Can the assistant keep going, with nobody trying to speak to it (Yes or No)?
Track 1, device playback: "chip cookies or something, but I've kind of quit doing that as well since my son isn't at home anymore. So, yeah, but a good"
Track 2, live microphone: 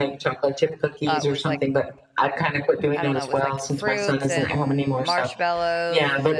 No